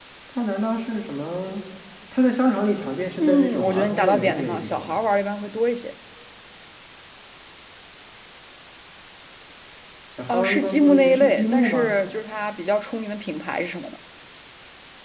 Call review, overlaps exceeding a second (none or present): present